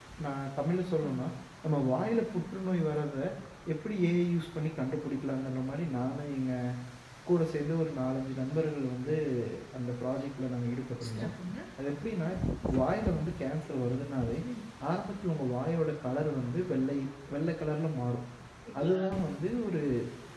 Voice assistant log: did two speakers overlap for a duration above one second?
No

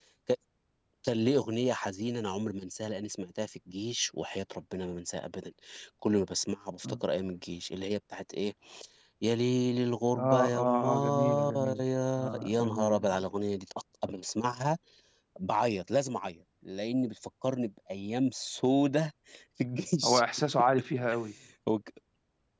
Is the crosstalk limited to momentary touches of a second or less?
No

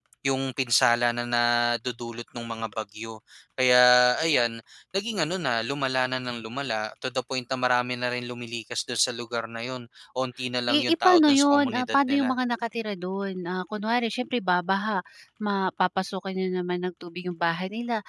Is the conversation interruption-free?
No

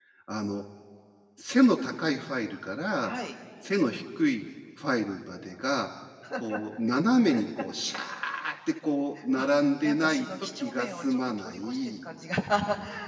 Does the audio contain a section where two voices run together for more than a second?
Yes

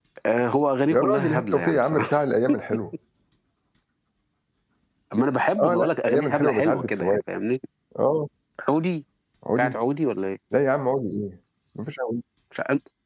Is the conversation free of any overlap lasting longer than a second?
No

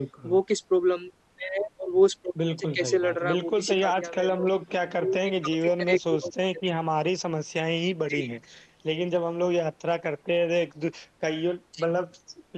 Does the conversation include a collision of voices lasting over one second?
Yes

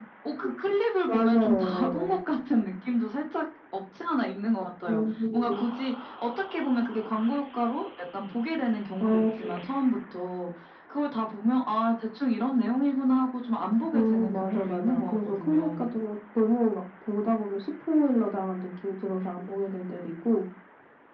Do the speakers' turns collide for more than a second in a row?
Yes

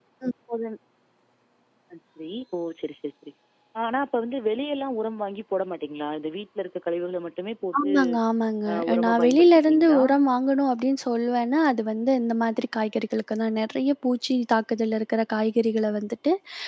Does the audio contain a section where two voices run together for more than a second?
Yes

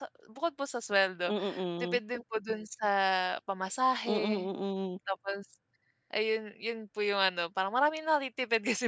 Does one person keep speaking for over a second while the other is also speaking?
No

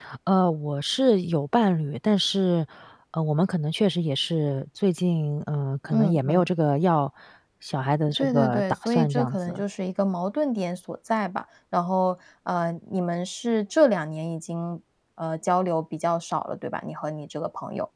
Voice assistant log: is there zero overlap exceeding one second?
No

